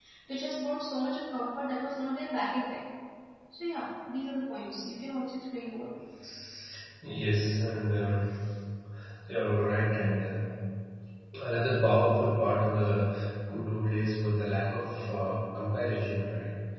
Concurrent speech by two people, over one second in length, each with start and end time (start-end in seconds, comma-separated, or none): none